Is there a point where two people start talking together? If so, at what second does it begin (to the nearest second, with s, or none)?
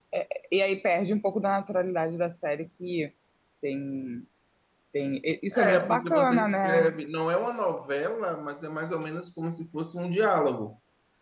6 s